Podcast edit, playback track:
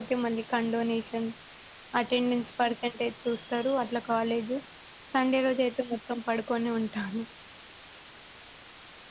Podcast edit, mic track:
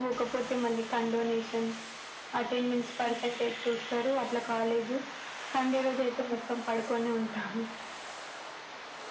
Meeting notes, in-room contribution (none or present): none